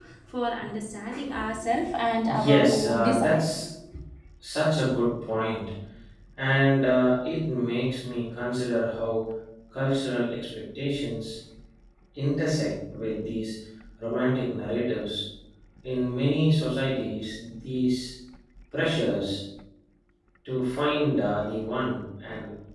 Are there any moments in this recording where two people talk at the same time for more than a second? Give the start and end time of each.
2.2-3.7

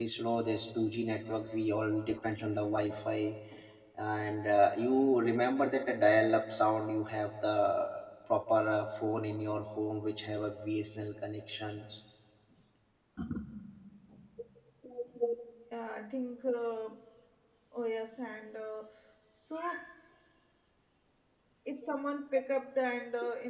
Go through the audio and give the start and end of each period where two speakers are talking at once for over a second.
none

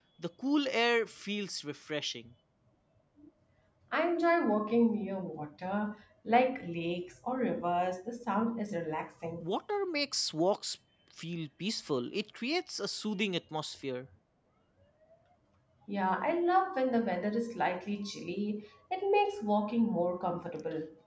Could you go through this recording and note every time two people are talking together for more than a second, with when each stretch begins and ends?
none

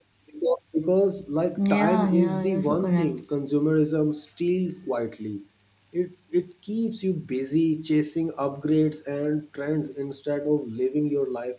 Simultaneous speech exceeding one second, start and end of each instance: 1.6-3.1

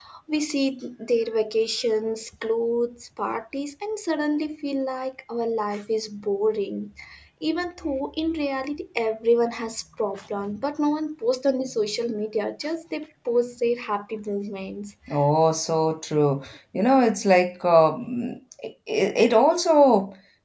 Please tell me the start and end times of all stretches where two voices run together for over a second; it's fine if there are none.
none

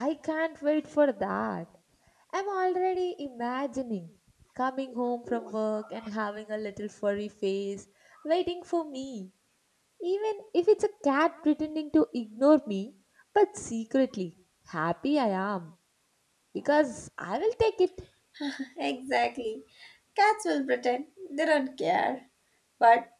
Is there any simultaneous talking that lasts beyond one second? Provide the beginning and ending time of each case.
none

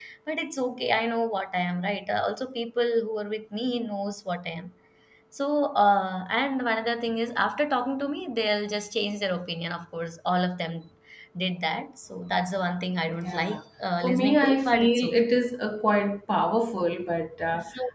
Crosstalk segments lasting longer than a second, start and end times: 14.0-15.4

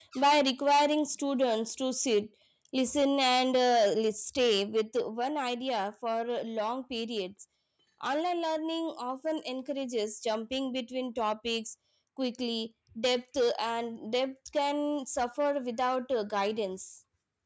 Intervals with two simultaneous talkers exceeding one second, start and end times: none

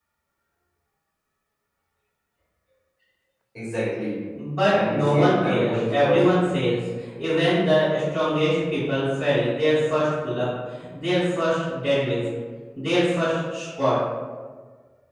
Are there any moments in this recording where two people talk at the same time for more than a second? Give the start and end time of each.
4.7-6.4

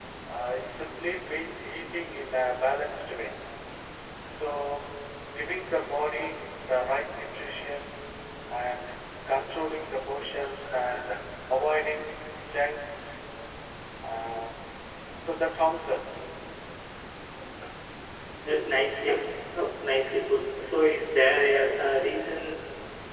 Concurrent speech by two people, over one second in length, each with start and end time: none

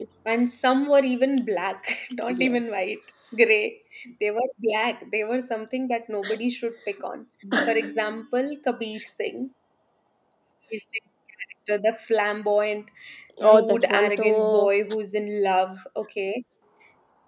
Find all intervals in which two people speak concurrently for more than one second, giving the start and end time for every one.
13.4-14.7

